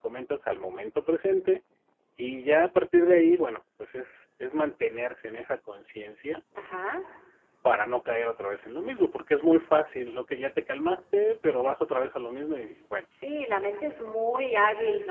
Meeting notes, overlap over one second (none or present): none